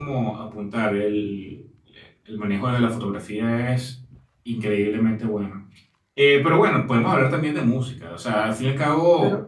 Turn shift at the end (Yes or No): Yes